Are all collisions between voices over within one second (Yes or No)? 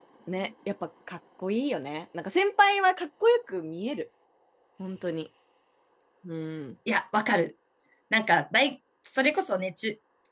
Yes